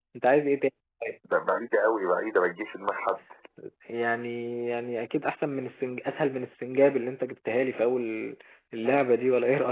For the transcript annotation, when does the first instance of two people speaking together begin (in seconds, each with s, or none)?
none